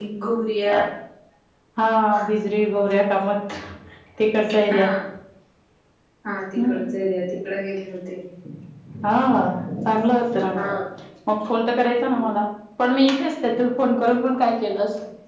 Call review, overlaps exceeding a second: none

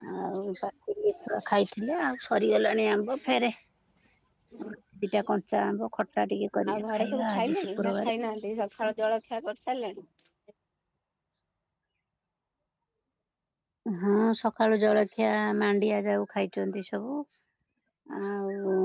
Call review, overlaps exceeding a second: present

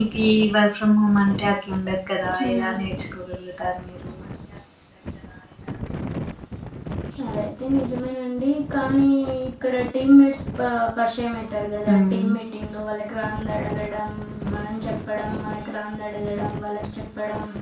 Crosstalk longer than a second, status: none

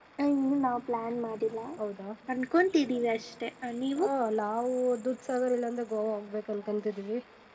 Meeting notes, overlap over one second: none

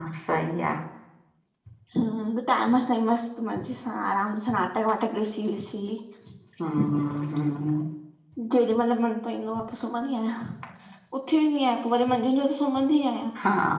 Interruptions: none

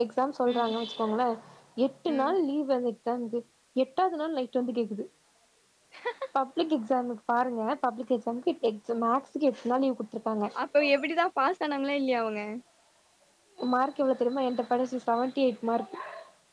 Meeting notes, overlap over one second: none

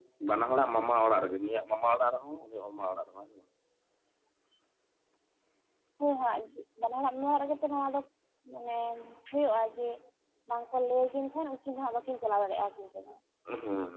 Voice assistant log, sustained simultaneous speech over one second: none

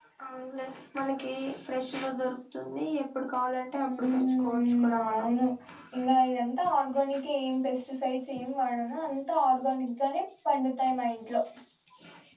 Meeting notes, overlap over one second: present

